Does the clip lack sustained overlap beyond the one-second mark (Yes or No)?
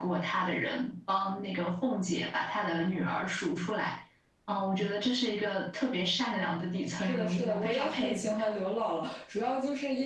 No